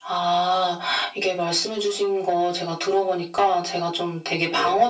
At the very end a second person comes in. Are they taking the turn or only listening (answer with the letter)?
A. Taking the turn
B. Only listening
B